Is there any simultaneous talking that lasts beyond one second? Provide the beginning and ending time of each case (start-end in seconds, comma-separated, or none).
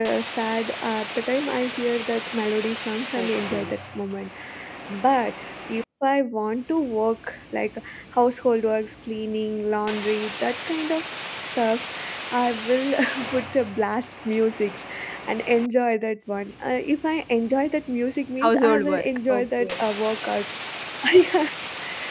18.4-19.8